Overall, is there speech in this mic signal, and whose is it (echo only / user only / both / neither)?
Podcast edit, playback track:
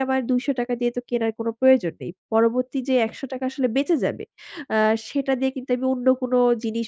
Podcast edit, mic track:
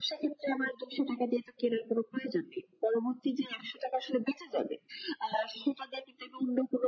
echo only